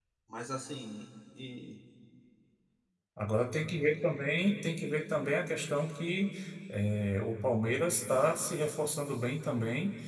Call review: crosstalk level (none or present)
none